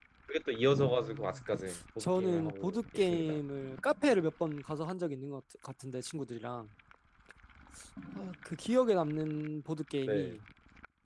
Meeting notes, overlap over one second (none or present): present